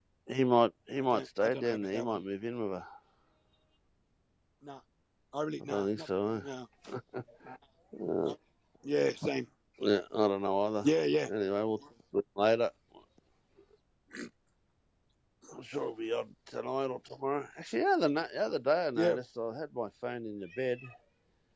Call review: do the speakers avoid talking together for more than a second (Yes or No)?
No